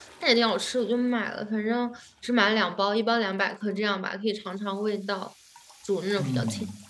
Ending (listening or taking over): taking over